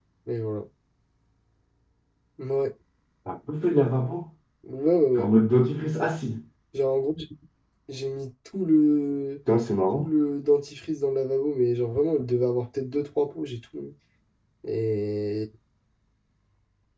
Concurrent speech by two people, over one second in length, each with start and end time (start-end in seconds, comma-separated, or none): none